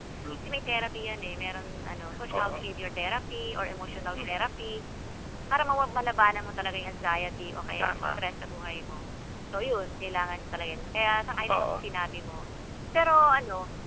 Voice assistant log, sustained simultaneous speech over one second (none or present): none